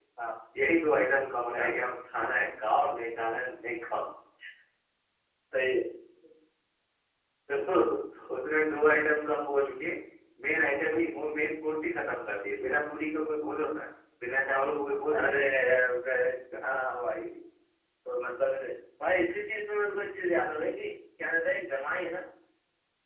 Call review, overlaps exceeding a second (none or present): none